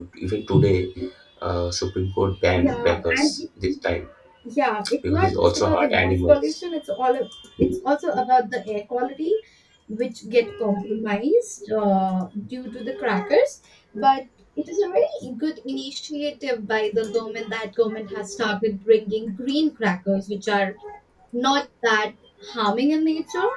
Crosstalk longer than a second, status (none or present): present